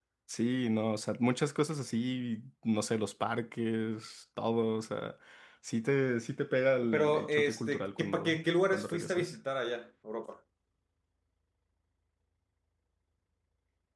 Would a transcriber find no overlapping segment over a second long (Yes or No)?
No